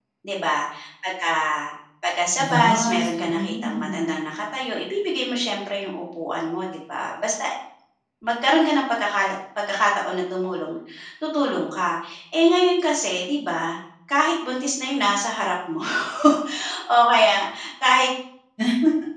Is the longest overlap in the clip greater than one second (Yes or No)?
Yes